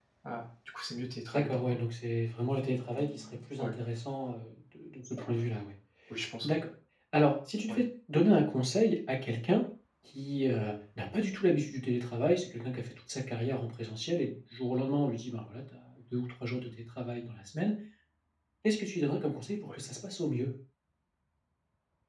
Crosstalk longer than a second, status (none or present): none